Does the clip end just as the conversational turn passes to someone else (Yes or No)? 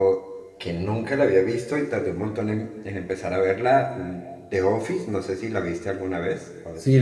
Yes